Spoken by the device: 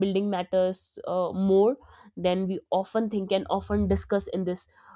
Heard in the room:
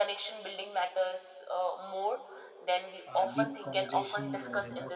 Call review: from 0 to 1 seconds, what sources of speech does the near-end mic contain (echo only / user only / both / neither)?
echo only